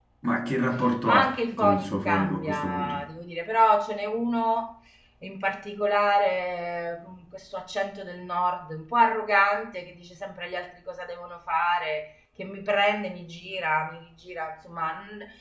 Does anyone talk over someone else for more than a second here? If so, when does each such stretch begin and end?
1.0-3.0

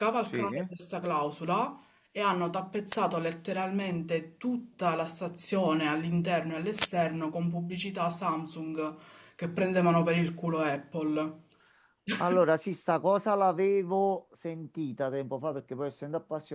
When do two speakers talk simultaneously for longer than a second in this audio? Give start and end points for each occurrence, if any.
none

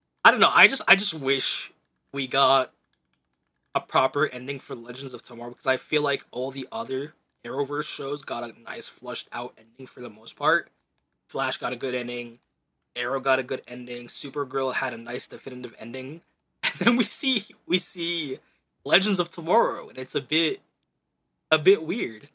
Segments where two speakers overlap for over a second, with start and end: none

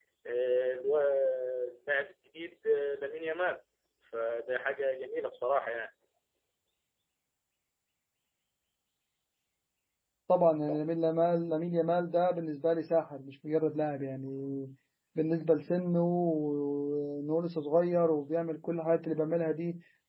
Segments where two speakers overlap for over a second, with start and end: none

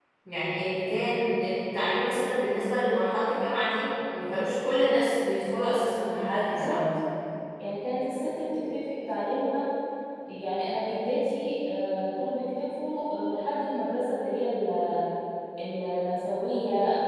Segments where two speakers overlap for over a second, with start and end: none

